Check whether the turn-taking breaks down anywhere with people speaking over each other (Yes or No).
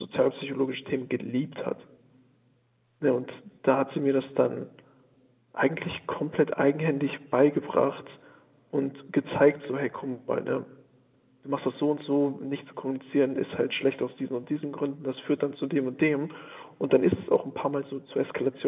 No